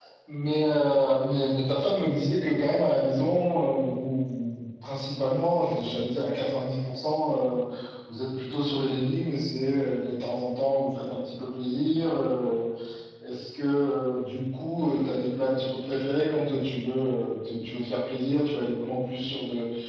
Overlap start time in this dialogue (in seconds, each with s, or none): none